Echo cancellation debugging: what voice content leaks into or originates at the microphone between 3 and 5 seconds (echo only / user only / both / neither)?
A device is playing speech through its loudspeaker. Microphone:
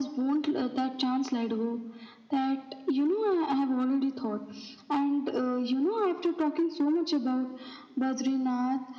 echo only